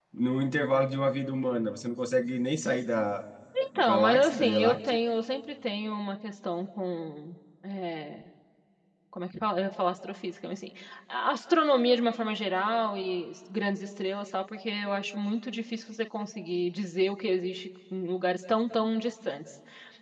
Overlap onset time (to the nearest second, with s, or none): 4 s